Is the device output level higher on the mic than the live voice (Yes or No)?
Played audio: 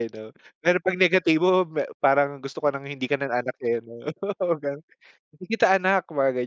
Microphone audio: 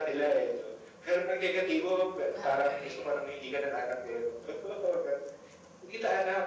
Yes